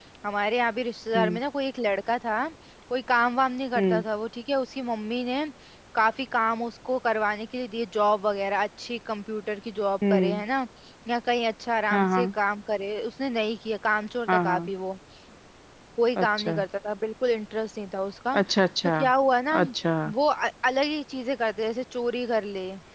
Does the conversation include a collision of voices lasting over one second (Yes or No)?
No